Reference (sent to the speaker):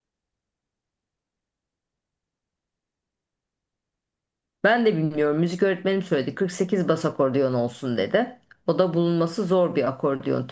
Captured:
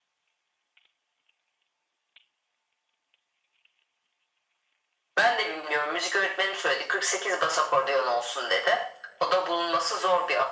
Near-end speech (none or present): none